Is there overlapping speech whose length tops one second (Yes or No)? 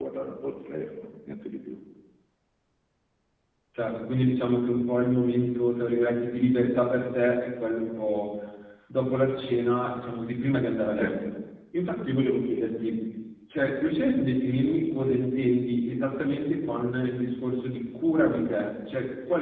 No